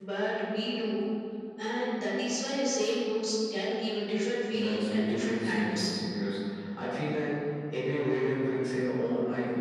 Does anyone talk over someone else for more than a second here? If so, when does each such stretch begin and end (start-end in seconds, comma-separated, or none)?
4.5-5.9